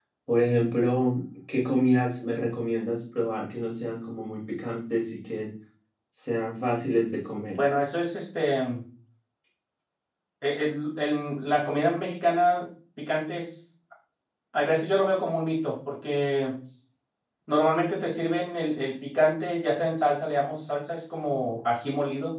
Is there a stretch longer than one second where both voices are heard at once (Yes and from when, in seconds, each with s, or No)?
No